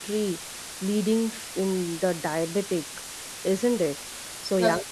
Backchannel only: Yes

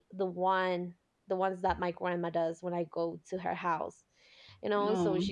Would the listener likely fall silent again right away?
Yes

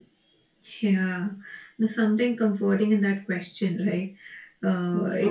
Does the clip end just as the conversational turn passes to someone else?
No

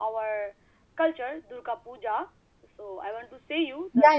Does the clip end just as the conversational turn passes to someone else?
Yes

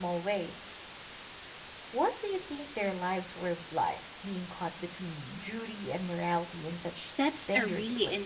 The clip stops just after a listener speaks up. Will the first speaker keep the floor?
No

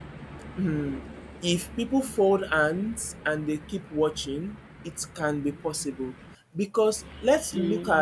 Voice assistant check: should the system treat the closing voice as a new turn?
Yes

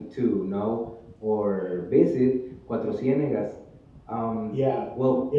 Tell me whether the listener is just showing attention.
No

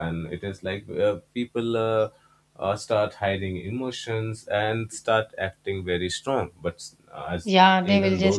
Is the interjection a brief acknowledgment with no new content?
No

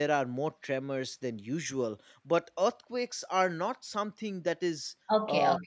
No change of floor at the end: No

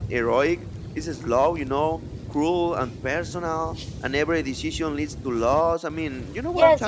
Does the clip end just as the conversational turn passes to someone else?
Yes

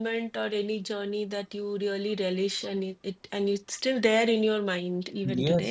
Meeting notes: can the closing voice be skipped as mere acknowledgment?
No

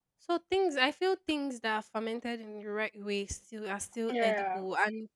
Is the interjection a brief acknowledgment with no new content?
Yes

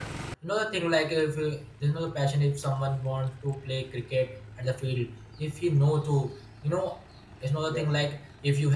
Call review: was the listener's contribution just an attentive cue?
Yes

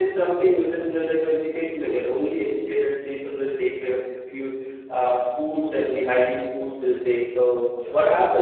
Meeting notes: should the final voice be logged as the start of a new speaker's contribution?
No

